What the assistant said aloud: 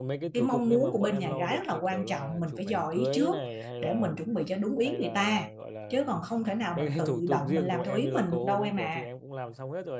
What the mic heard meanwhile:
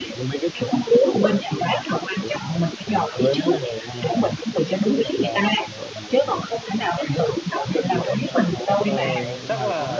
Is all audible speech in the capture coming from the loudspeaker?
No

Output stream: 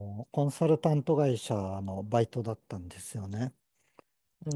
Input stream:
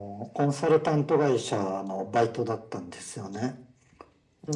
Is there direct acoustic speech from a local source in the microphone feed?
No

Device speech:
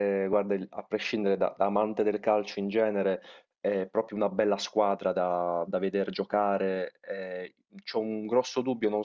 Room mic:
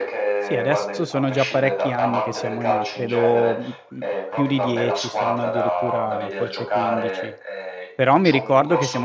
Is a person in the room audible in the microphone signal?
Yes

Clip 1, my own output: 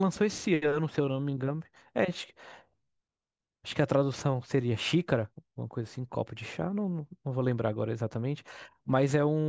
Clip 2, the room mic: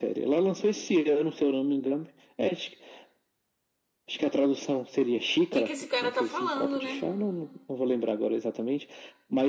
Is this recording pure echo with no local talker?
No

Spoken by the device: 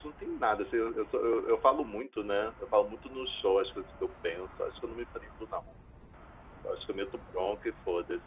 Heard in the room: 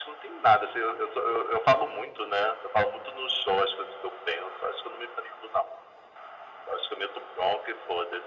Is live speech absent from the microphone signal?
Yes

